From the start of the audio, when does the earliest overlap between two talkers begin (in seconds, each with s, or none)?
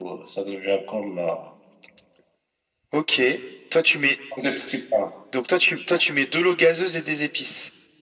none